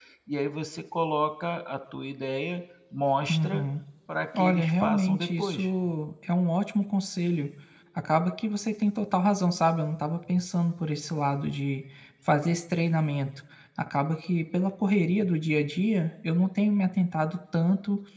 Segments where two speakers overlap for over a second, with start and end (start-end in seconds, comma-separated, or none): 4.4-5.7